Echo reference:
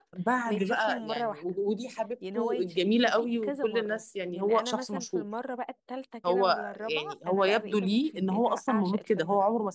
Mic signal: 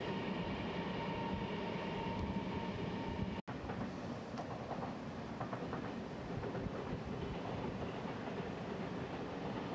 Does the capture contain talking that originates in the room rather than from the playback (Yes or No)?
No